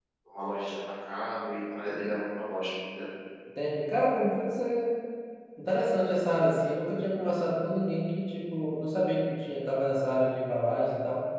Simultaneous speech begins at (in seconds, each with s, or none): none